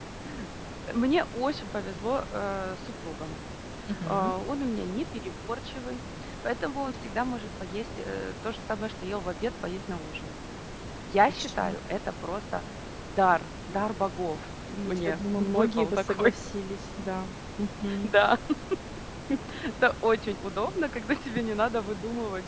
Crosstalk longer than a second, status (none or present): present